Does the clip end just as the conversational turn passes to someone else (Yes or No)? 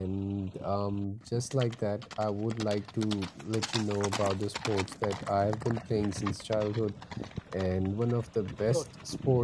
No